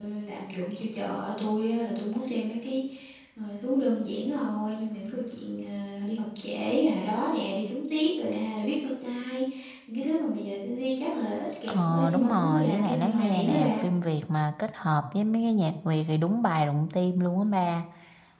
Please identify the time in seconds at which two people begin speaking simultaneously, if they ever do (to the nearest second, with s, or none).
12 s